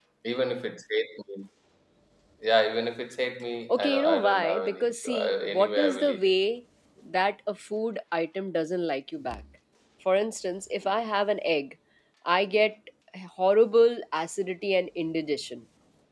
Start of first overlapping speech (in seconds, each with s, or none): 3.7 s